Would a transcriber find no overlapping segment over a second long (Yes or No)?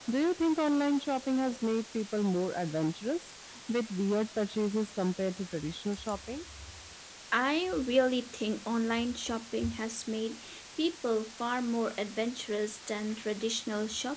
Yes